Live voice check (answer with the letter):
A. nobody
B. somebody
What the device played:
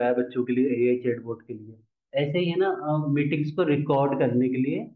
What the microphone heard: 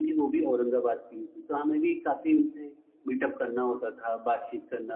B